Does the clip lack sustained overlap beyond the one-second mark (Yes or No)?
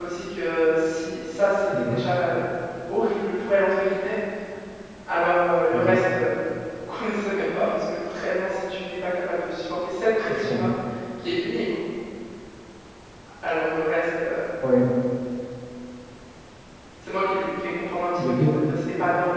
Yes